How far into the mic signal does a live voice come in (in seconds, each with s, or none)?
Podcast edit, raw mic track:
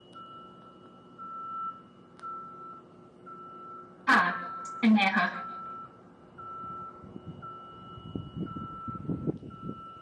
4.1 s